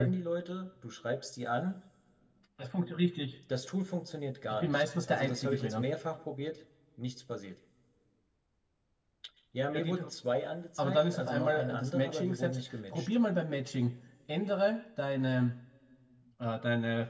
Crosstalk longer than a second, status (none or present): present